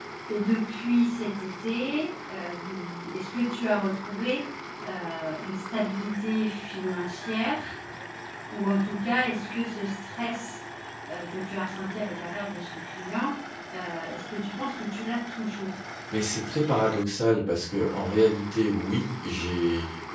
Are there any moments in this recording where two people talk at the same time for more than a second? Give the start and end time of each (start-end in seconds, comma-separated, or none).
none